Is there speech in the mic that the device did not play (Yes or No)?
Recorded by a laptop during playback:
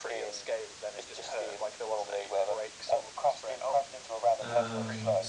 Yes